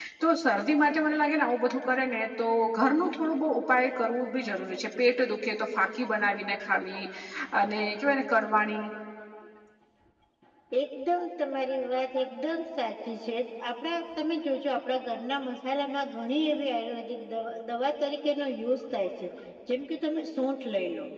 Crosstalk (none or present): none